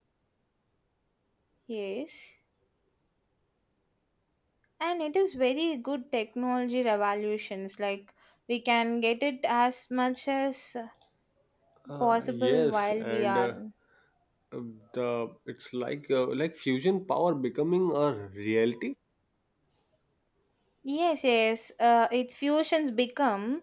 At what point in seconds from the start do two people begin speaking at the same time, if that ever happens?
12.0 s

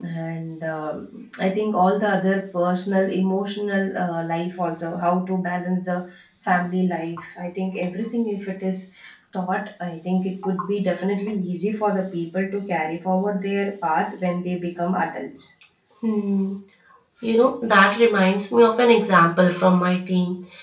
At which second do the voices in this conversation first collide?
none

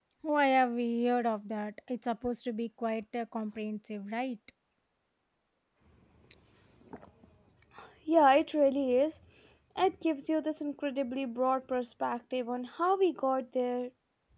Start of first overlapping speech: none

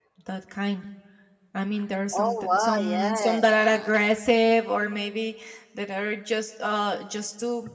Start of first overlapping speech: 2.1 s

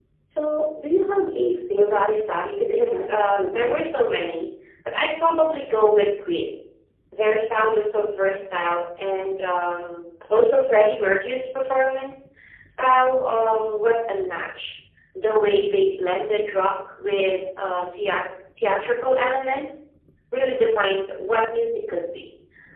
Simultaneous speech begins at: 1.8 s

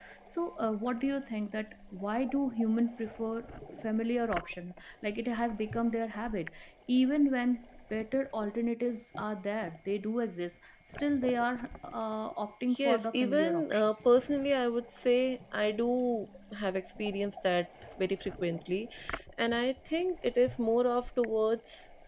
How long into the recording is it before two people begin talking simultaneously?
12.7 s

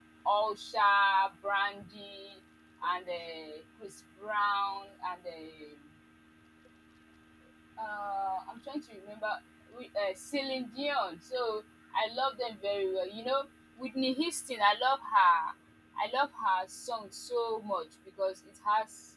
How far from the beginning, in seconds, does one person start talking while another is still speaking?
none

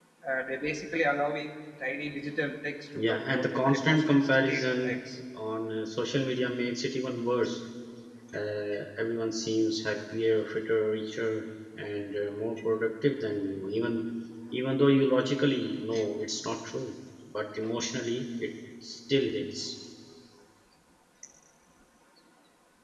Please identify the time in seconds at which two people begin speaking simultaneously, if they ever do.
3.0 s

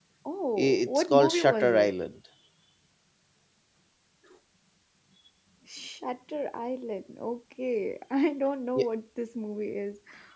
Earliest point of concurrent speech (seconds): 0.6 s

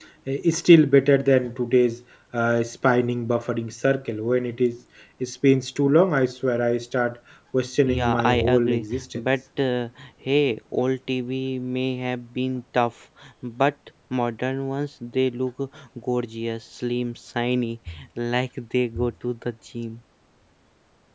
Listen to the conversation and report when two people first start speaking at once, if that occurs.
7.9 s

